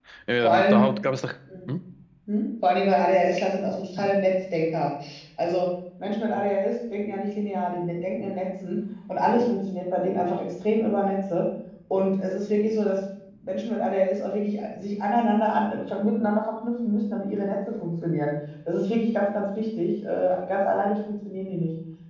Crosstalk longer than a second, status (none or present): none